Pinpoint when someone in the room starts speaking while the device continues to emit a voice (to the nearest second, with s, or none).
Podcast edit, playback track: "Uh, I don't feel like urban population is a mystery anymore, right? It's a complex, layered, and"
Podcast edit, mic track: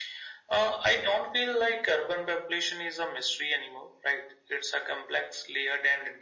none